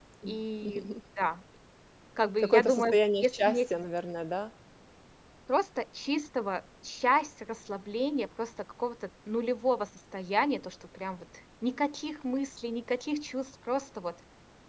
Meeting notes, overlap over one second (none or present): present